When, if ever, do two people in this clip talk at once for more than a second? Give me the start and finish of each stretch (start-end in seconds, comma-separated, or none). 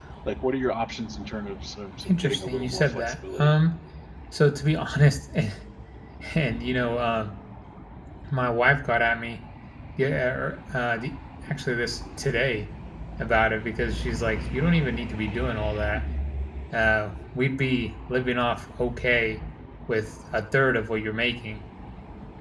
2.1-3.5